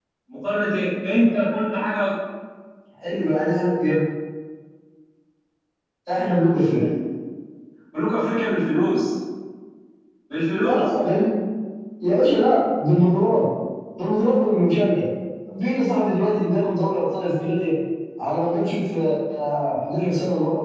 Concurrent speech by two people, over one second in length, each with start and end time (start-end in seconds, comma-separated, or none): none